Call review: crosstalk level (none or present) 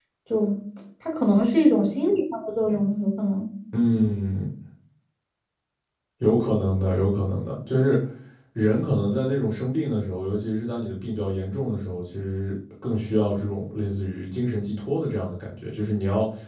none